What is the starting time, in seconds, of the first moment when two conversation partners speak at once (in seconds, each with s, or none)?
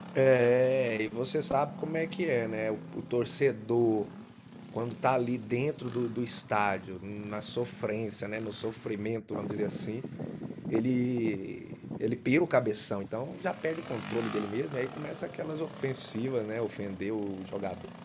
none